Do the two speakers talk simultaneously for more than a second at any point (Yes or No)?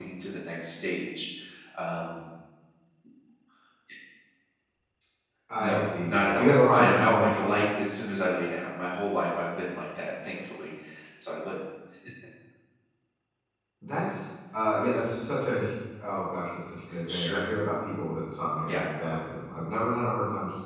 Yes